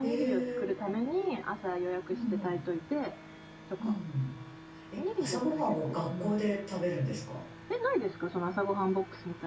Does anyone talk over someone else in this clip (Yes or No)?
Yes